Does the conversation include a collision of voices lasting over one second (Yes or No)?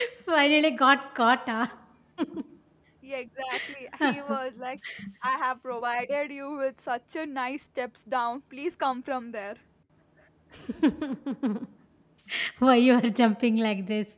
No